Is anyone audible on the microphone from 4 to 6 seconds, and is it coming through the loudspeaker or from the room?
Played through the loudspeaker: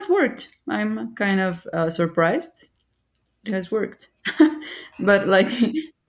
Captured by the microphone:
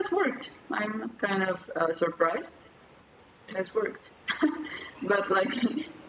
echo only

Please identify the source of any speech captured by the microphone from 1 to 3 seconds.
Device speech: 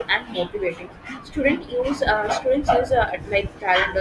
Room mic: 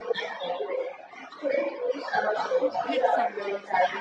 both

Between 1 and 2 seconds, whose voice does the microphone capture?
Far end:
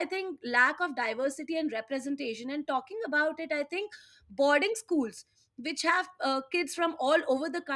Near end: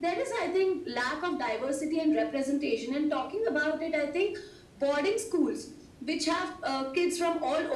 echo only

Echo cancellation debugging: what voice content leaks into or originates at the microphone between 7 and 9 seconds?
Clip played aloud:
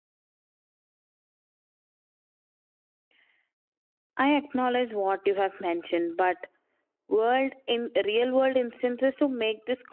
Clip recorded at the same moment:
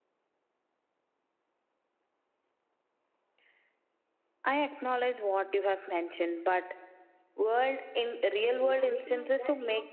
both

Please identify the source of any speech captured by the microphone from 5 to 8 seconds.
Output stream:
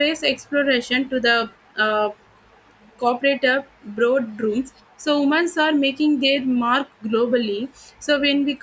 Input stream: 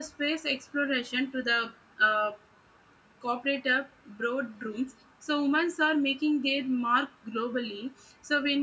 echo only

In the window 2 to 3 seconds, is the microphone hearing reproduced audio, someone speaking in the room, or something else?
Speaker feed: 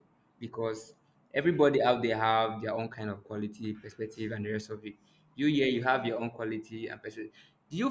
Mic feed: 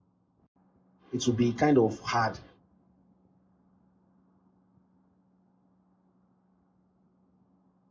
user only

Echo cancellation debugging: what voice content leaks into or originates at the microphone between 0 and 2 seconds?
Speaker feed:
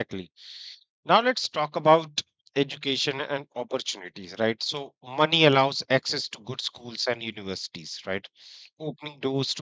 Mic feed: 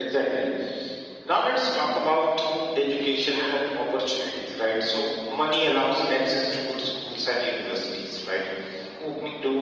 echo only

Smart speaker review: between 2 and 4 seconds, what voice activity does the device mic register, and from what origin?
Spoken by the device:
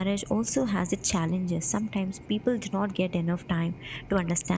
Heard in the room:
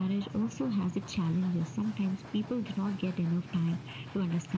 echo only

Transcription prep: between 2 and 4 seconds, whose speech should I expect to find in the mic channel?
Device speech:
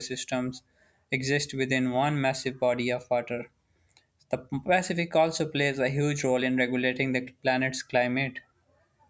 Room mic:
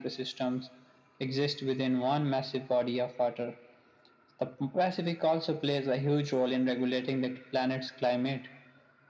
echo only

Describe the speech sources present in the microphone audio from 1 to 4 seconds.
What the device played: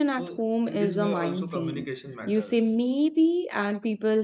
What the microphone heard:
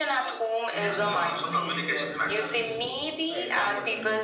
both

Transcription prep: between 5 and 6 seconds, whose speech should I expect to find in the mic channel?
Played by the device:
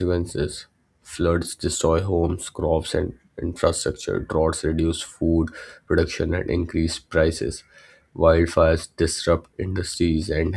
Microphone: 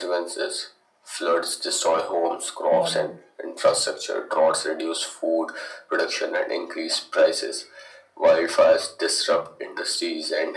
echo only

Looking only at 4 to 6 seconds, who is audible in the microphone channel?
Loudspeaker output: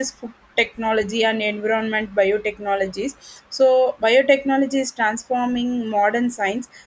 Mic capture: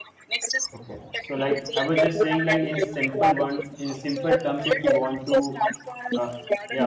both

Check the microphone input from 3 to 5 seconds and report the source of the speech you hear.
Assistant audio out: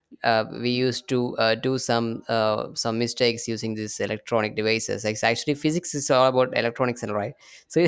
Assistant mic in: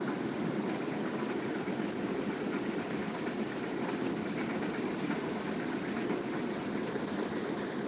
neither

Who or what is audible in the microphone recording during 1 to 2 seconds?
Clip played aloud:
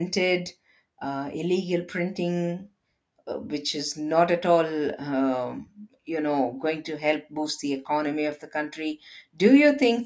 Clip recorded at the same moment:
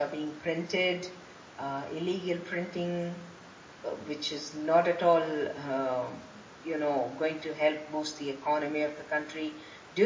echo only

